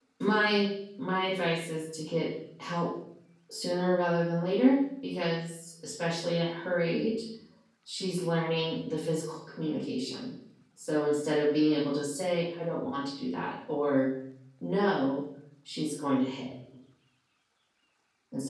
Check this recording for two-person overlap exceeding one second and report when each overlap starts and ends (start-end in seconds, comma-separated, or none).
none